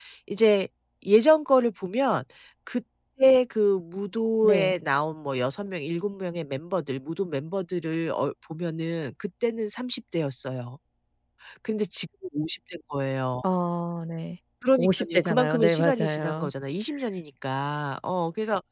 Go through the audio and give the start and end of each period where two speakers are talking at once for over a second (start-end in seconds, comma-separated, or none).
14.8-16.5